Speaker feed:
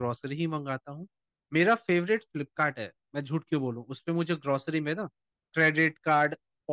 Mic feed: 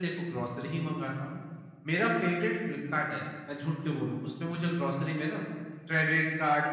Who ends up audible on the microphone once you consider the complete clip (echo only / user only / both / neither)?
echo only